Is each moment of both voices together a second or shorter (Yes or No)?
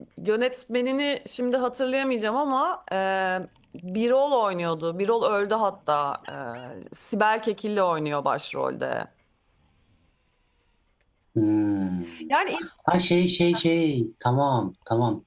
Yes